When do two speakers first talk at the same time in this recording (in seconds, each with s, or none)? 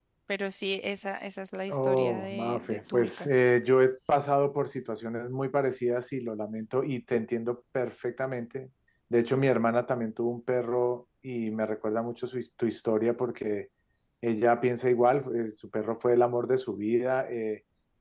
1.7 s